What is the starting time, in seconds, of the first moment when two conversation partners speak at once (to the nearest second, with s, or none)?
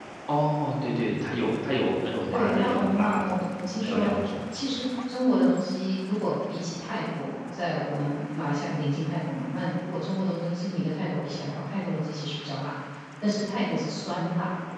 2 s